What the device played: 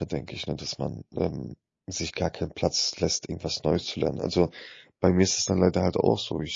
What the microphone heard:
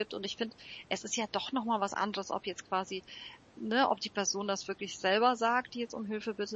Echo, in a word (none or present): none